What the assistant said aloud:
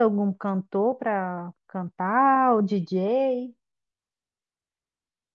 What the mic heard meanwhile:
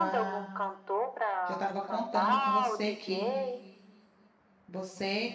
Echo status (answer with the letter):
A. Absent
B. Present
B